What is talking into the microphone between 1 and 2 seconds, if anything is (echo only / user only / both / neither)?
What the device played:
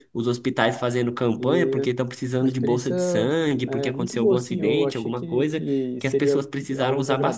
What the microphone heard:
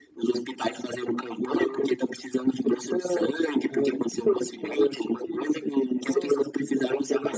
echo only